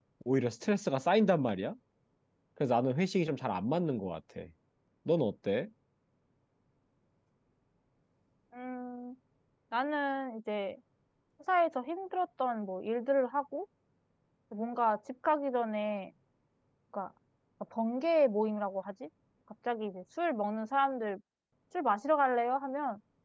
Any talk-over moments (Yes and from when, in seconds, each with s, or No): No